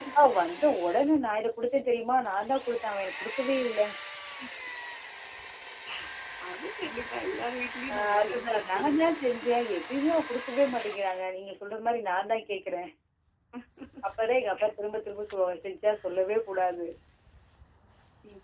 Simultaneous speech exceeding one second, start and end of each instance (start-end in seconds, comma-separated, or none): 7.9-9.2